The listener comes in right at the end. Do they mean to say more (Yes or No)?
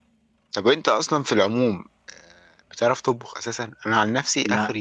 No